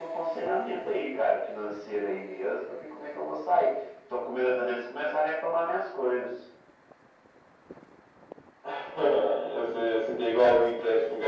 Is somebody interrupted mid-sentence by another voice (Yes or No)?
No